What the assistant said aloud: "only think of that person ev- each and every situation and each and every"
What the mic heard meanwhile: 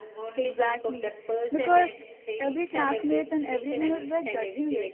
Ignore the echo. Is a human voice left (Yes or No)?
Yes